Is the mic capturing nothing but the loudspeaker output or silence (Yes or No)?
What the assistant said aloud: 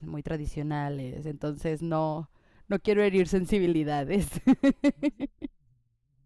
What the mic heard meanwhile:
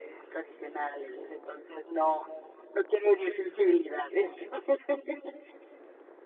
Yes